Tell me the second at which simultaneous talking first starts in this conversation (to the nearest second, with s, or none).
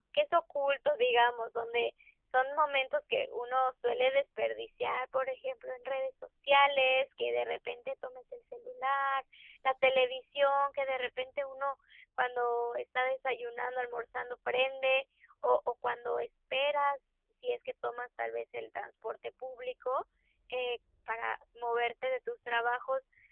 none